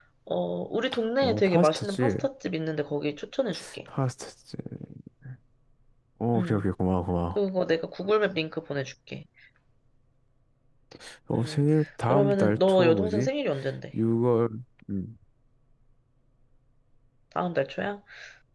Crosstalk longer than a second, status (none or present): present